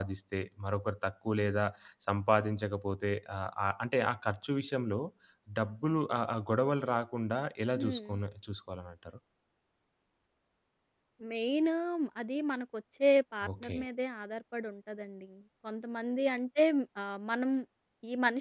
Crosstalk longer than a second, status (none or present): none